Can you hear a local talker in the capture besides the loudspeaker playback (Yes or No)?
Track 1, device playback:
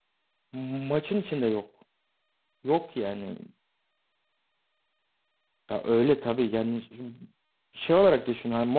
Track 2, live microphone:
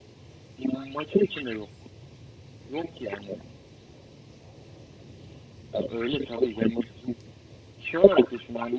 No